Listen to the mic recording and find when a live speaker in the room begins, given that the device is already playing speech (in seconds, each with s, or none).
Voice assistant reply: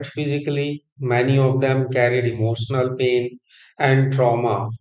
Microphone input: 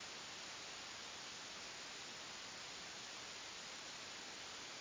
none